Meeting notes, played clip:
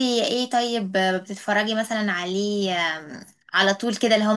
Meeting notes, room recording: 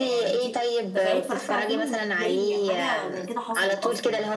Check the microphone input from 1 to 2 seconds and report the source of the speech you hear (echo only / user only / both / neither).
both